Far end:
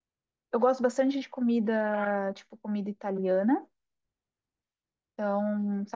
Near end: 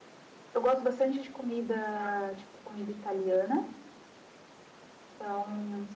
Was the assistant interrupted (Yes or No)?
No